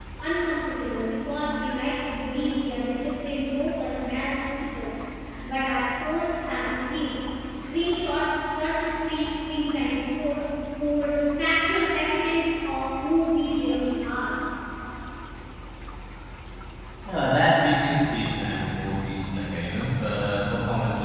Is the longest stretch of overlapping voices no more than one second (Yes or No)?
Yes